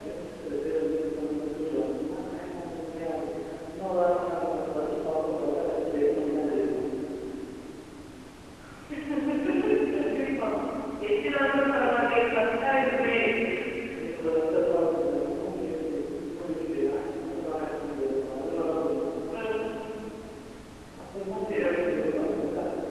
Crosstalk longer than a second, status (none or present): none